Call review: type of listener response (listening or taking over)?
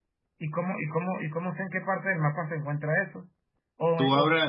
taking over